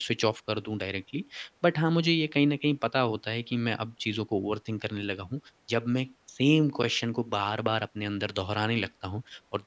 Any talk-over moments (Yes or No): No